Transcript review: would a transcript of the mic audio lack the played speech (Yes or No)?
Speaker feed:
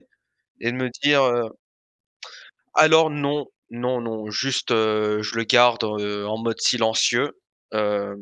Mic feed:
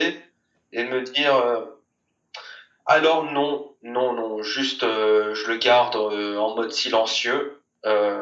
No